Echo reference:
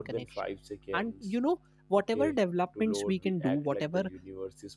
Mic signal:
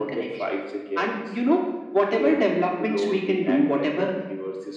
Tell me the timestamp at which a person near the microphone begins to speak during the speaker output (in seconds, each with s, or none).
none